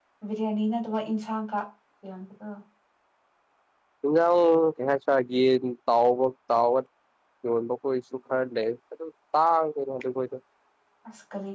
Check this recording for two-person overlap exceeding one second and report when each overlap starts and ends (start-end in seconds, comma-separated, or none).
none